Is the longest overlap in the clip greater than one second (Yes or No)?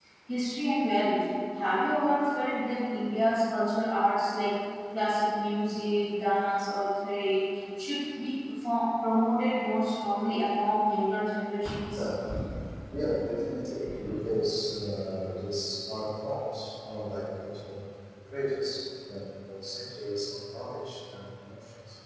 No